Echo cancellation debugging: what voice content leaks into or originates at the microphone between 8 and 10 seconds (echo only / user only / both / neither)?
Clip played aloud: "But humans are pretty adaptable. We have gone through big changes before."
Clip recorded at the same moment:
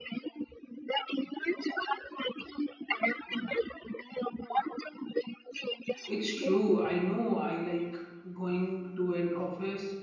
user only